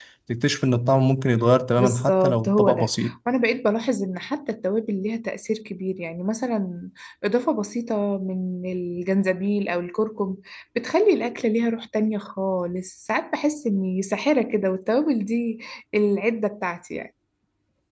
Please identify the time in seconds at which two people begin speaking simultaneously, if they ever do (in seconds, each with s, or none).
1.8 s